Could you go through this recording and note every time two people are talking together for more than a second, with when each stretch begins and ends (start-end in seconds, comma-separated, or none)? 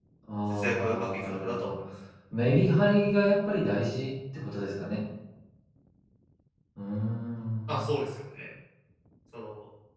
0.5-1.7